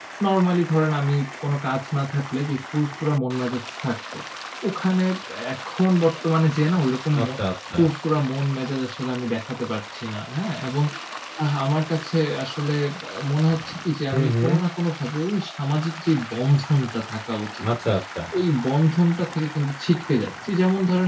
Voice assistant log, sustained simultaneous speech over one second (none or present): none